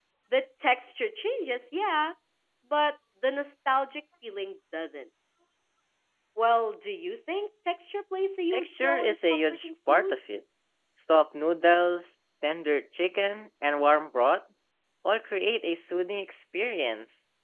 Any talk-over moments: Yes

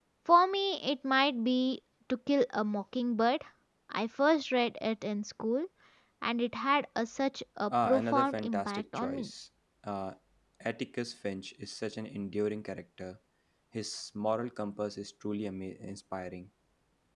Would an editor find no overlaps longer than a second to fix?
No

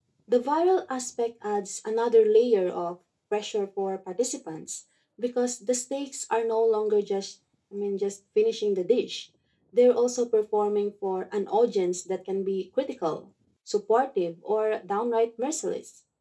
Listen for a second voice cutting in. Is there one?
No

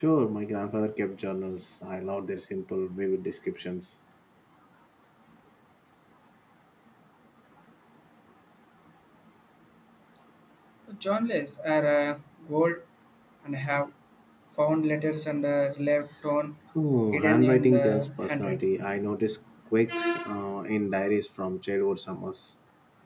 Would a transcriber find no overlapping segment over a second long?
No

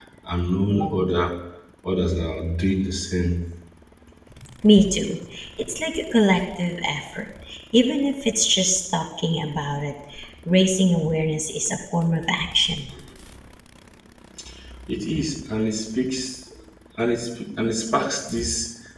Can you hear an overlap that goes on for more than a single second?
No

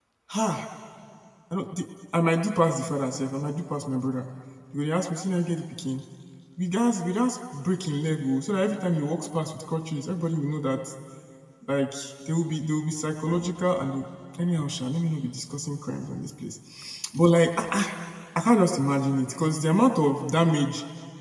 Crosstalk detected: No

